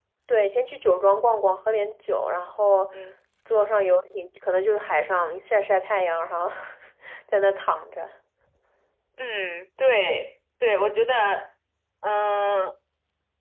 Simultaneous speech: No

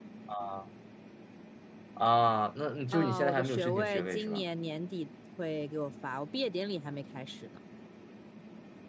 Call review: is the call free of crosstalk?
No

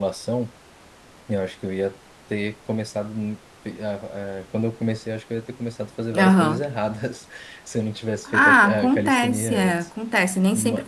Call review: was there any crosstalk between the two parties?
Yes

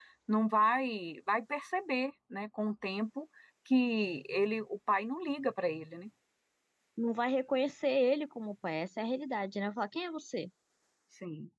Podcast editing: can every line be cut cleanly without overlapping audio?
Yes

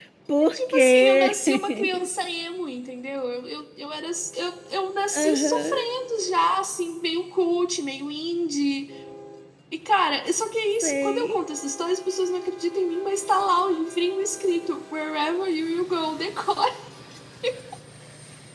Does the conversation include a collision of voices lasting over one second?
Yes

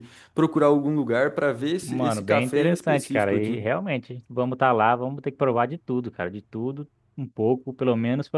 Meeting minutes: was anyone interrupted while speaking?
Yes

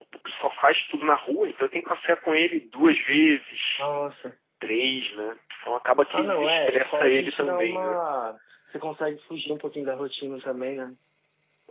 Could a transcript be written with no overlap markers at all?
No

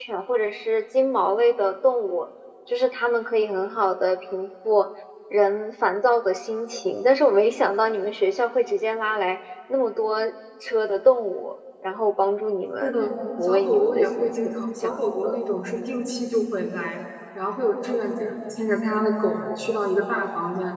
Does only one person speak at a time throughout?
No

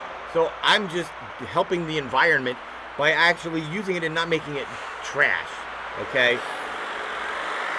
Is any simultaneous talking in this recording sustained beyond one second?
No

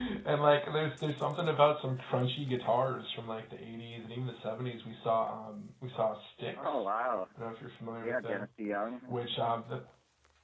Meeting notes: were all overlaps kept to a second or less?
Yes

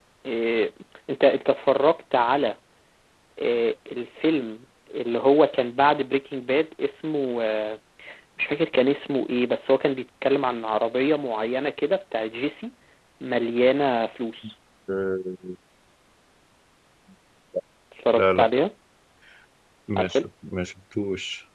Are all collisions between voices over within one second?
Yes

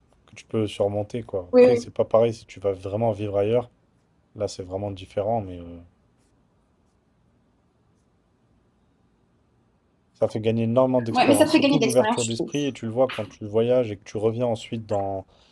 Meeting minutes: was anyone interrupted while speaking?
Yes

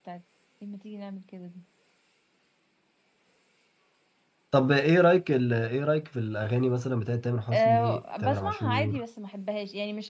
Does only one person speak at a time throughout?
No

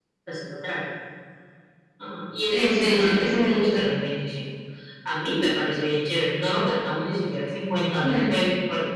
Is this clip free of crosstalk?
No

